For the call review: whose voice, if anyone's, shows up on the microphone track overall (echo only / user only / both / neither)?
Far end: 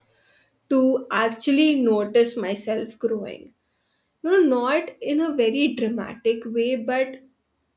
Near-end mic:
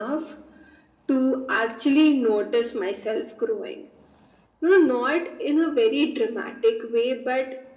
echo only